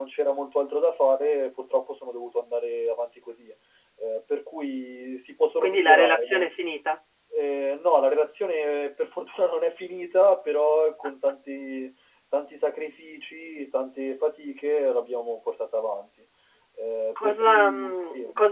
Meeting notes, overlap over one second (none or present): present